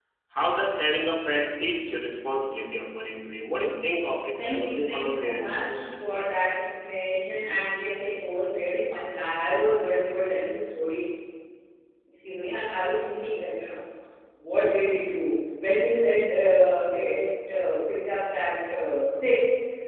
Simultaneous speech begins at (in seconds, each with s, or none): 4.4 s